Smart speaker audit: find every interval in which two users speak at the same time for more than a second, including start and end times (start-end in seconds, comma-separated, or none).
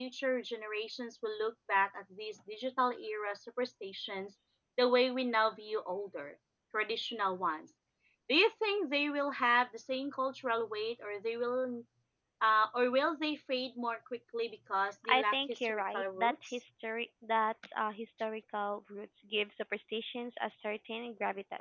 15.1-16.6